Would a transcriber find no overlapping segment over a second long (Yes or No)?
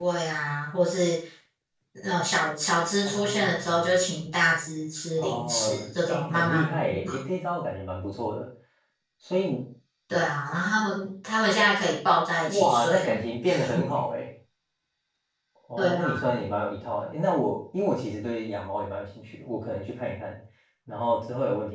No